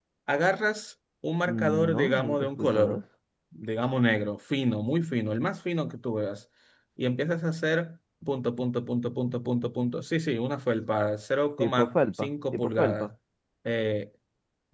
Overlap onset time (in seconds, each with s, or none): 1.5 s